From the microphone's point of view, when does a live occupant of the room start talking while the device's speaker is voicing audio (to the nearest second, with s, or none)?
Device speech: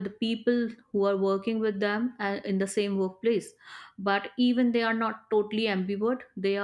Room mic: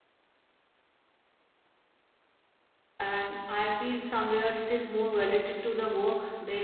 3 s